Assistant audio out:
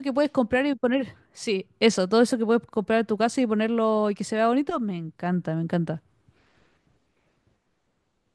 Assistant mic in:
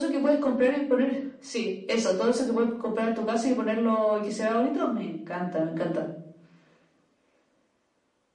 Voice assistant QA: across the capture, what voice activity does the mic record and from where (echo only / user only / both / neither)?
echo only